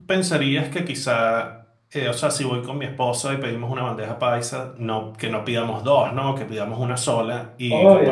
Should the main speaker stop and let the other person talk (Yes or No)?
No